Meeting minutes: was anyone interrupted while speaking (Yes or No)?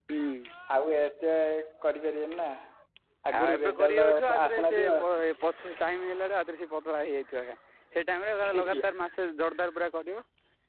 Yes